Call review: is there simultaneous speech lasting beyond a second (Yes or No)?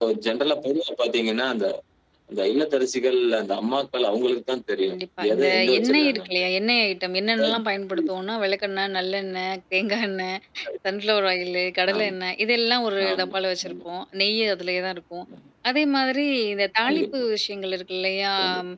Yes